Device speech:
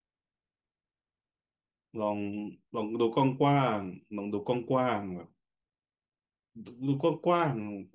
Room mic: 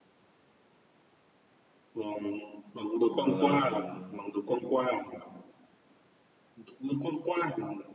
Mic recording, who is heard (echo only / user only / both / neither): both